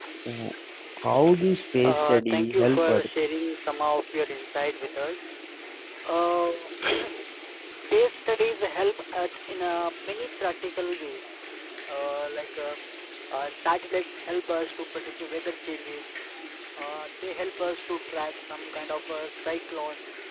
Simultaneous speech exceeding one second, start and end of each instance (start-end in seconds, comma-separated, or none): 1.8-3.1